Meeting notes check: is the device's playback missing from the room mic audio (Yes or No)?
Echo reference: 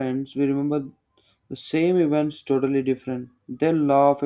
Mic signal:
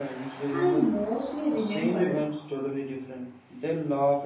No